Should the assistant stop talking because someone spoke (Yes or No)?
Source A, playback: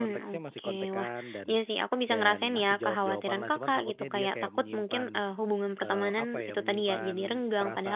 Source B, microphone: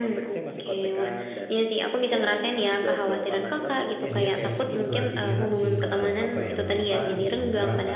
Yes